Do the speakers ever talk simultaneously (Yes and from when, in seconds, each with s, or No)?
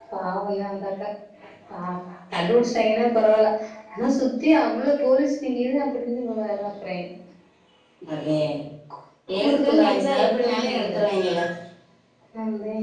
Yes, from 9.4 s